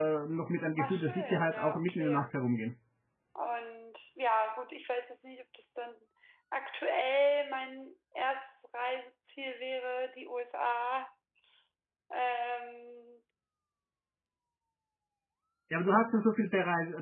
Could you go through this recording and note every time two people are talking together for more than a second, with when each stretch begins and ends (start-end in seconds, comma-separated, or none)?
0.8-2.4